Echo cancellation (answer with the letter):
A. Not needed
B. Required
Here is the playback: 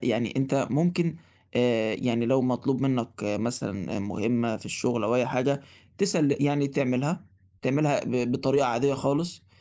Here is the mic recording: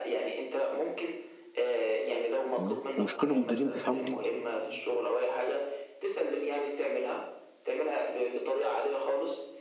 B